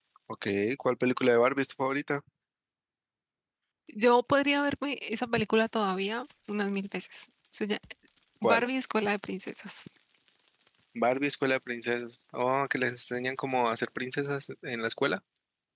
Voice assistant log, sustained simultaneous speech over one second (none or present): none